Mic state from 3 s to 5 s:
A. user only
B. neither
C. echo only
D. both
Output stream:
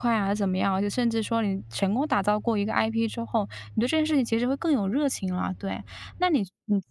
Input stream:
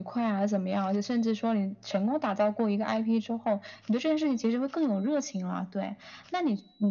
C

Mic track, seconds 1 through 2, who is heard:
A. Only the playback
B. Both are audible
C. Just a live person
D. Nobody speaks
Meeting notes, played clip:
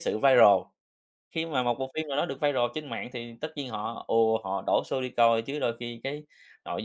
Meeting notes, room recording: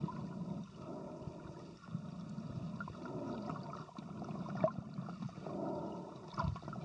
D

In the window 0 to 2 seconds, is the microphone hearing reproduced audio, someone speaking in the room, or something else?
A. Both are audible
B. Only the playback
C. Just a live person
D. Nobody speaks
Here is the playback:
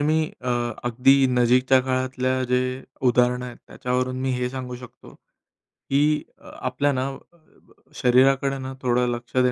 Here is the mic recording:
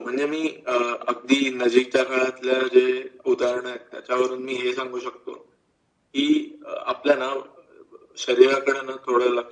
B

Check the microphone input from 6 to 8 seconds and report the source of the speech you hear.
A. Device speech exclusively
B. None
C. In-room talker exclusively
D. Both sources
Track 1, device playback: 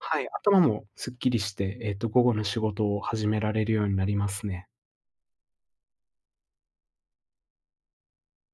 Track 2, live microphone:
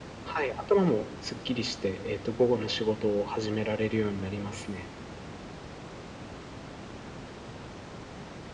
B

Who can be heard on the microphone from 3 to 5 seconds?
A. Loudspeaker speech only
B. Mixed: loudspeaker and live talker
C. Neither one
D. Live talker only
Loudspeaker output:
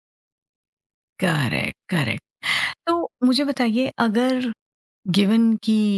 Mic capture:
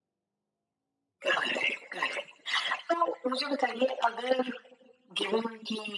A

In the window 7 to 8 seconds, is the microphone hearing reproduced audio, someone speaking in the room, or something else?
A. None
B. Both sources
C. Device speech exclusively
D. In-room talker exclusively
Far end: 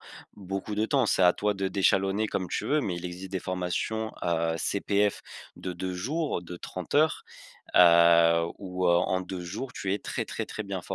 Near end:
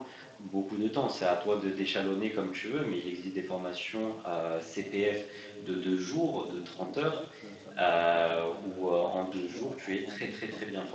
B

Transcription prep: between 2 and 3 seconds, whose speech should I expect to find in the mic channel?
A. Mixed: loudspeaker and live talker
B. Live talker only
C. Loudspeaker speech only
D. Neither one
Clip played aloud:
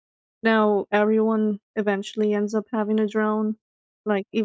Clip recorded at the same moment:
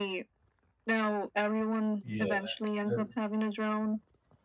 A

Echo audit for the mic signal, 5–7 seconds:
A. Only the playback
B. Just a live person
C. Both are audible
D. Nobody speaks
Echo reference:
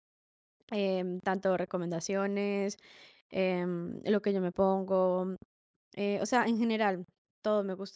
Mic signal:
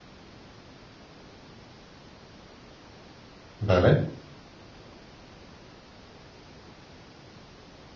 D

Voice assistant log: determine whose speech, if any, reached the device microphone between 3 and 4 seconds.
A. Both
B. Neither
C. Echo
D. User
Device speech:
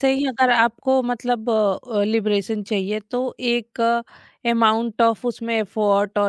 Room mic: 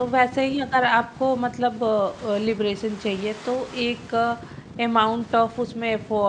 C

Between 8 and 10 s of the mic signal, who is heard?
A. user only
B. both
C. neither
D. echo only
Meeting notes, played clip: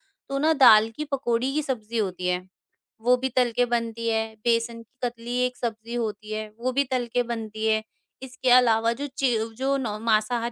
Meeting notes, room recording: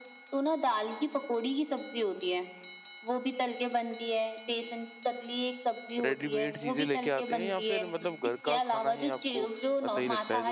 B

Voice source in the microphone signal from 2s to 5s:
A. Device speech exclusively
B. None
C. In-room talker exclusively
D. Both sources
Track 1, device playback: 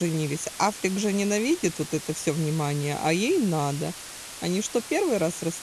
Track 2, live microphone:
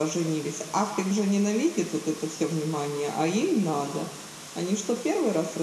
A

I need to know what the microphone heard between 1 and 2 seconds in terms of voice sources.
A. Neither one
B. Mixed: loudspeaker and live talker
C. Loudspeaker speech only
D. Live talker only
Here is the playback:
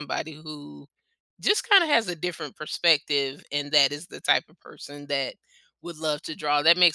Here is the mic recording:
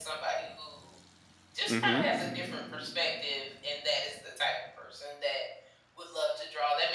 B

